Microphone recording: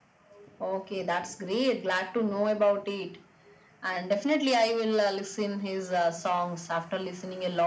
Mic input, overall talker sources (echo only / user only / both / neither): echo only